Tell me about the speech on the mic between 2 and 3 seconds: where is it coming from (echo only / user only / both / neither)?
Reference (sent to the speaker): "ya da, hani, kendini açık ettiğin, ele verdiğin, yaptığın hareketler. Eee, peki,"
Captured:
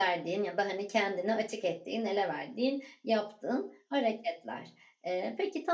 echo only